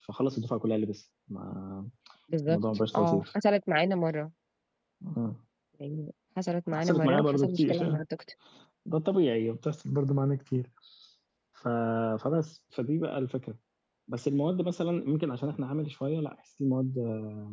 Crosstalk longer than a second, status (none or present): present